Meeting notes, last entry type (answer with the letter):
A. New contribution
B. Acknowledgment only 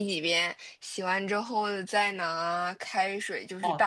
A